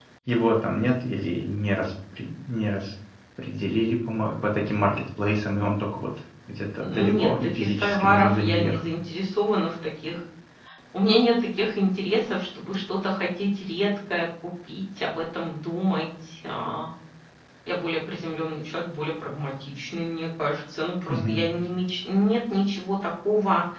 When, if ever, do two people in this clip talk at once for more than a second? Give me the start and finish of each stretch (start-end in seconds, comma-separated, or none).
6.8-8.8